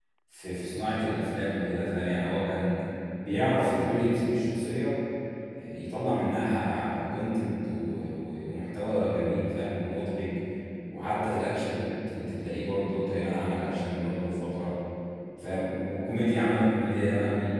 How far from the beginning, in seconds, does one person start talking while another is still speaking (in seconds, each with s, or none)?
none